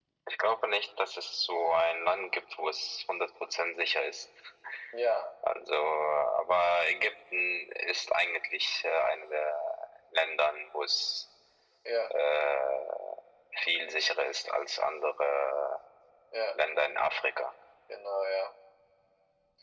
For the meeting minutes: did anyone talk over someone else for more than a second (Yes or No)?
No